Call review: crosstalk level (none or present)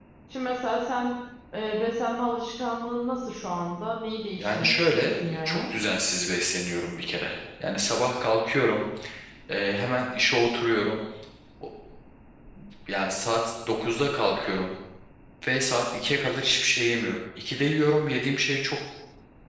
present